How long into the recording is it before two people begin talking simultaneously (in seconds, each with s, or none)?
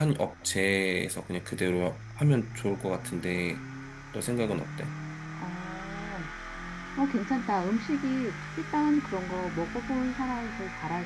none